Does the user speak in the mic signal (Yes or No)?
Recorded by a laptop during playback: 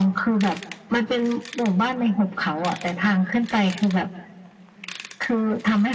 No